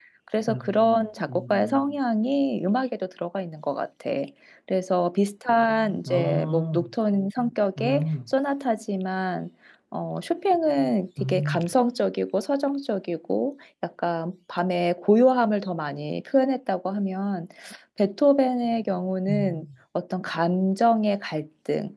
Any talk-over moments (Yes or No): Yes